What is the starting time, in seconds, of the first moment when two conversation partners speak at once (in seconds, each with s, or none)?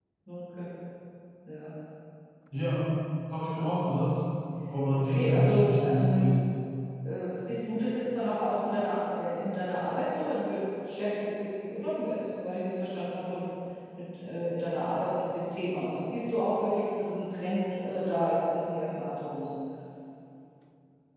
4.9 s